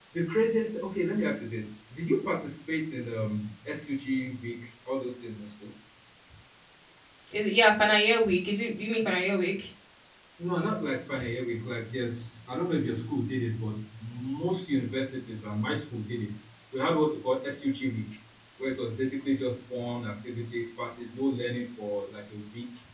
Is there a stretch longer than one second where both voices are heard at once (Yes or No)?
No